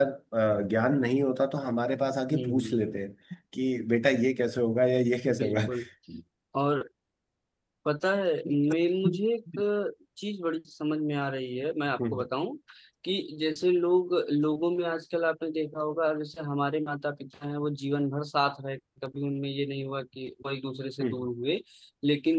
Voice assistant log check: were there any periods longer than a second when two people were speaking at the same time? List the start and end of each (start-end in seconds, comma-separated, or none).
none